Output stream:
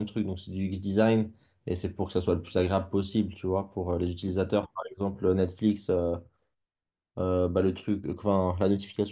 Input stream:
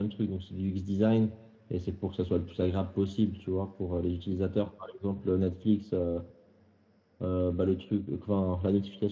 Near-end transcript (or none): none